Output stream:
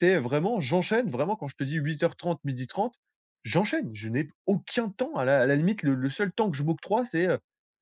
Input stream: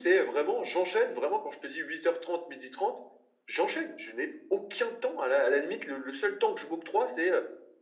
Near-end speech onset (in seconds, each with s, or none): none